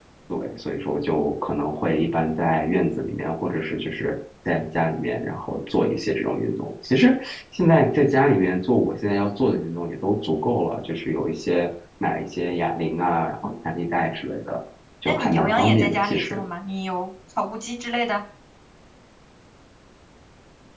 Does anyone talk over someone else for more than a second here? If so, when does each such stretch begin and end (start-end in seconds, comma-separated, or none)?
15.1-16.4